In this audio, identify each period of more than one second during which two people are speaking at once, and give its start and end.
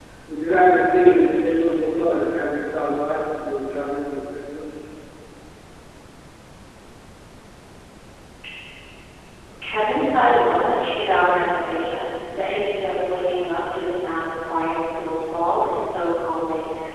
none

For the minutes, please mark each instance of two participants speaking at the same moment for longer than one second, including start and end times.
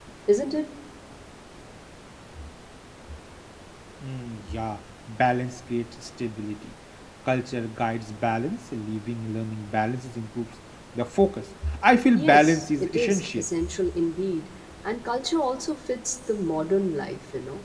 12.2-13.4

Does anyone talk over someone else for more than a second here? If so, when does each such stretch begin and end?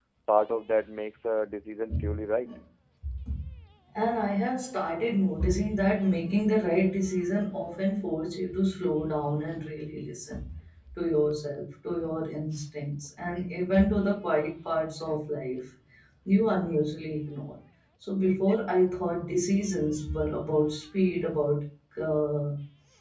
none

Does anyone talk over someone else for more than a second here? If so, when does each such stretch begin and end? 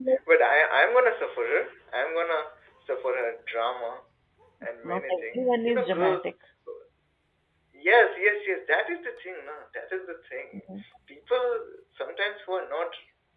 4.8-6.3

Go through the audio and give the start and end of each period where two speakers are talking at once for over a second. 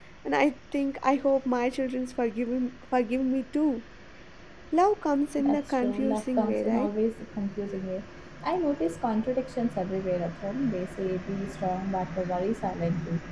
5.4-6.9

